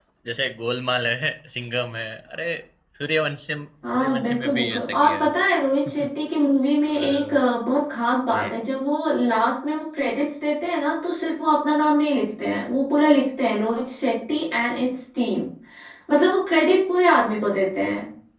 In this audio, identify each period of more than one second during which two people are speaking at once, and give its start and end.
3.9-5.3

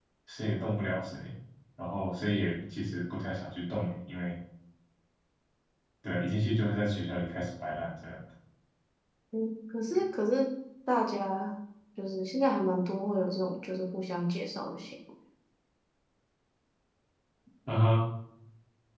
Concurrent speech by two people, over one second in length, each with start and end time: none

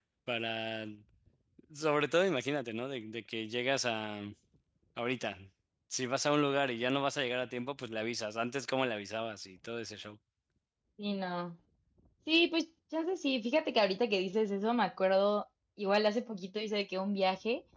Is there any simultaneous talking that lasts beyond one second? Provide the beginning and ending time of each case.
none

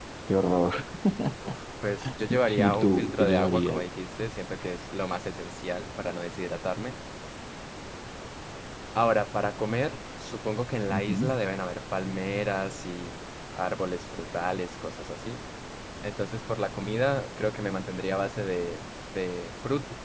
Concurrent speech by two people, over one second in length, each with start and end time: 2.3-3.9

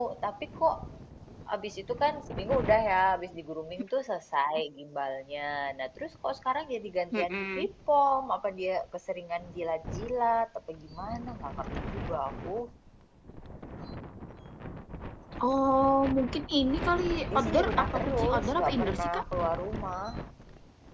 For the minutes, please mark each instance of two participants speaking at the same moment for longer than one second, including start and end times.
17.4-19.2

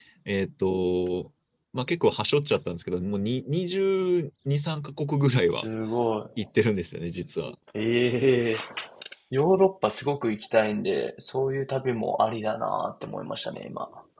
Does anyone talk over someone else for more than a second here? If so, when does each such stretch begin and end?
none

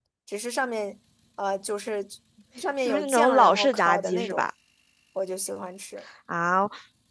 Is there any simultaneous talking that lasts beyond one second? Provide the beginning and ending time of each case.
2.9-4.5

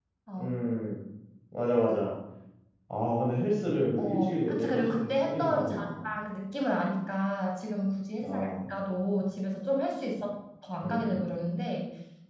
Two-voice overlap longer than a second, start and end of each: 4.0-6.0

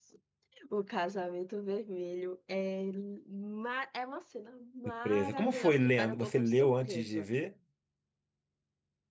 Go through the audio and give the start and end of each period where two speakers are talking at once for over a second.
5.0-7.3

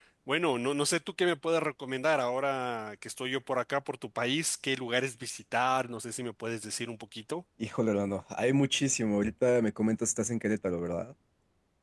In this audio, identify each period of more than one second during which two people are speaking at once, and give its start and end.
none

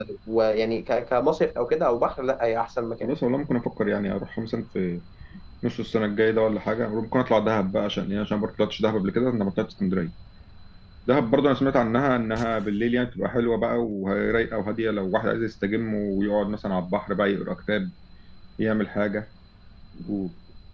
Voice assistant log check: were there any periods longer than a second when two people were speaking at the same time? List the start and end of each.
none

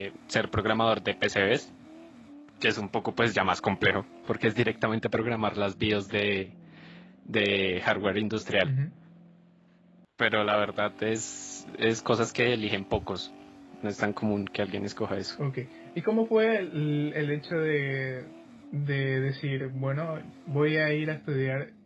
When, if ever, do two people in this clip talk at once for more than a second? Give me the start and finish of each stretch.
none

